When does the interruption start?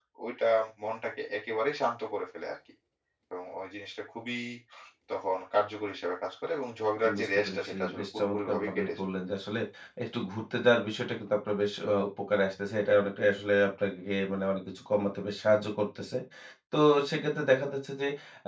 7.0 s

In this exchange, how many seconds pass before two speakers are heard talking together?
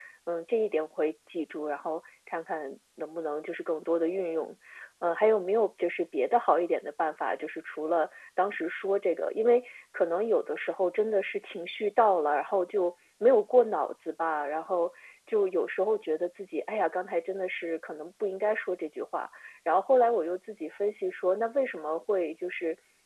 none

